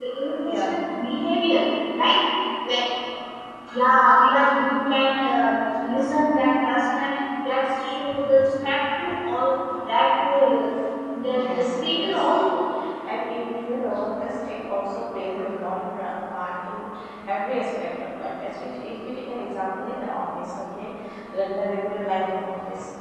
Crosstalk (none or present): present